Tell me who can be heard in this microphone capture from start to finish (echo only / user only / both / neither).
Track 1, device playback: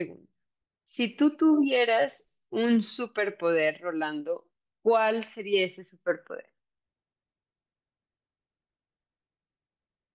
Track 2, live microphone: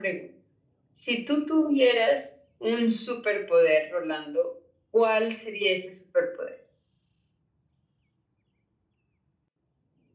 echo only